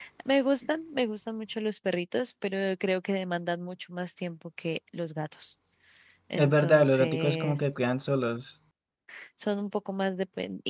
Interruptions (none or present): present